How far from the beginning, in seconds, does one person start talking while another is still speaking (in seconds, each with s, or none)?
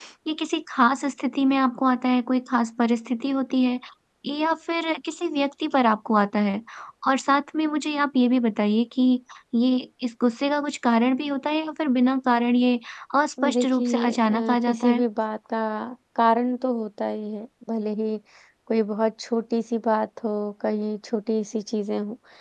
13.5 s